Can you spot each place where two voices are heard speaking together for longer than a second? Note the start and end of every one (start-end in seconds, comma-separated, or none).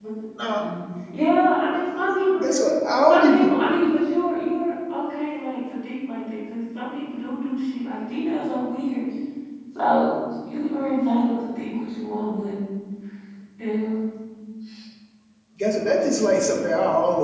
none